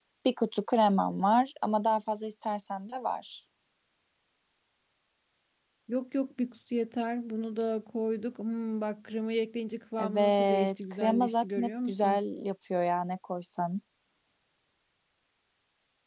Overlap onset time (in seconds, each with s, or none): 10.0 s